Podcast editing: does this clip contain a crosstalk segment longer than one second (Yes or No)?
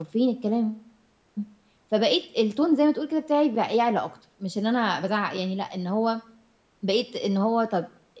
No